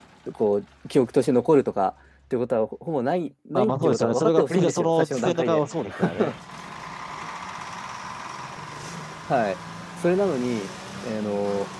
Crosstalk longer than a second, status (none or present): present